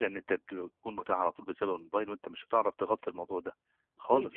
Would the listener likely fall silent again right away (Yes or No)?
No